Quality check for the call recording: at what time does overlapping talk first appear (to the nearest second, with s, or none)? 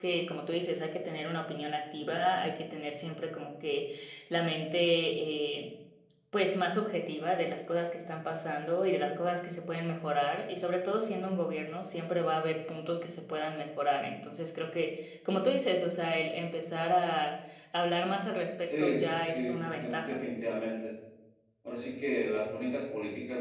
19 s